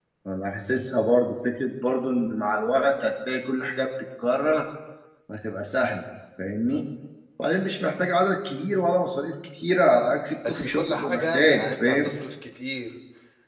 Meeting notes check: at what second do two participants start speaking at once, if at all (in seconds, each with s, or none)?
10.4 s